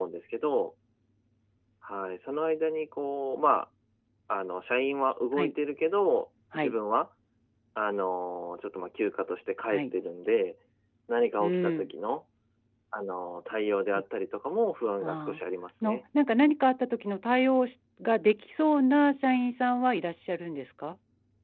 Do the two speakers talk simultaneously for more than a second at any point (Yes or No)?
No